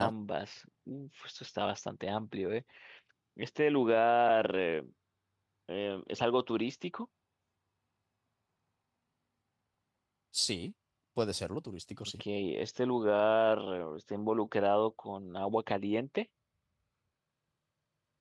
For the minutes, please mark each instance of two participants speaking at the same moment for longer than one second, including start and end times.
none

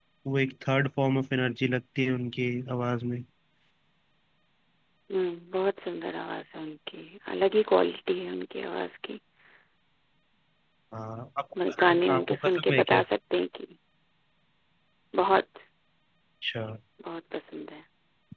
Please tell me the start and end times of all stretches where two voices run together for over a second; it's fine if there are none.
11.7-13.0

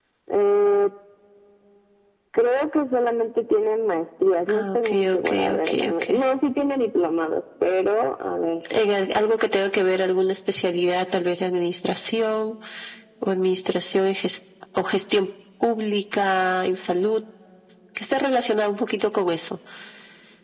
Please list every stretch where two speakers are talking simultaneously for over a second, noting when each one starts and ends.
4.5-6.0

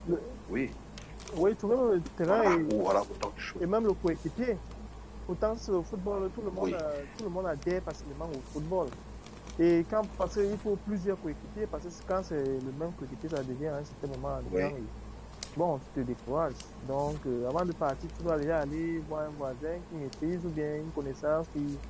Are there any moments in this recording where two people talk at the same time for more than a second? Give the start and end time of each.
none

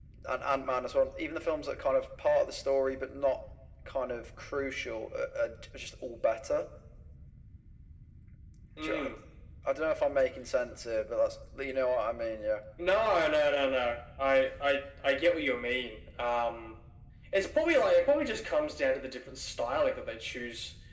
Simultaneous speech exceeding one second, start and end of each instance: none

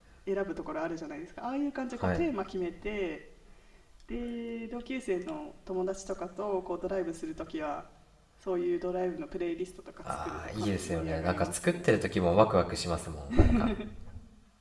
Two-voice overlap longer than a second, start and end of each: 10.2-11.8

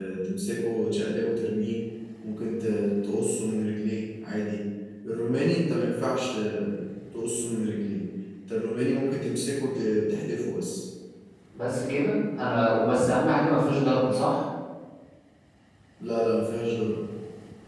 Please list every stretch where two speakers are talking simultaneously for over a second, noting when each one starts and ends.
none

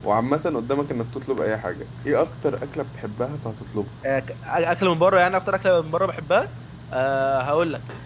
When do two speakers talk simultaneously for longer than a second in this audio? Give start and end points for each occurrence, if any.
none

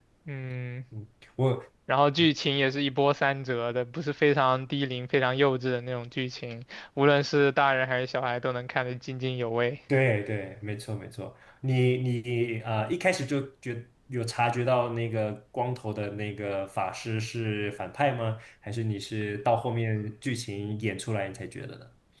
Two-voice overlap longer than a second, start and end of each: none

